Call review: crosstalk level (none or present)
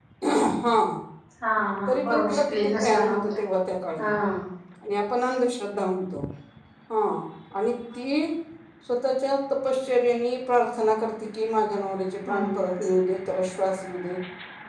present